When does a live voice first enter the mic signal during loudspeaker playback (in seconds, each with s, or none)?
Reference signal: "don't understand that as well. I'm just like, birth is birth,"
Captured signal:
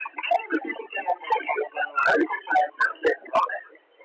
none